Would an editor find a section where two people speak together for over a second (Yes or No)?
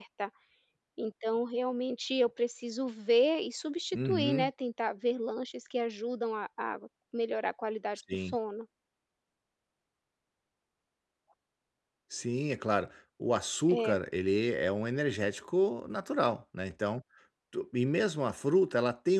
No